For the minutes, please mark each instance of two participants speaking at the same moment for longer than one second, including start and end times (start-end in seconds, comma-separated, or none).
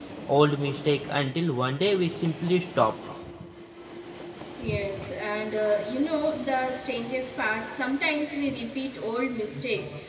none